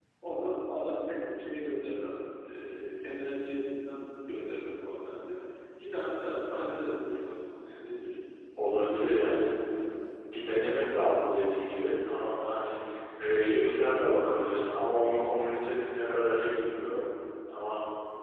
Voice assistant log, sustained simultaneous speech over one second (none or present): none